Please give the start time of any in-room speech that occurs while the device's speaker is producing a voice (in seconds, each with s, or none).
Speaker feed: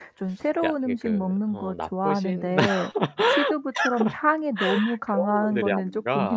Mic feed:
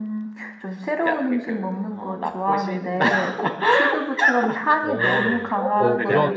4.8 s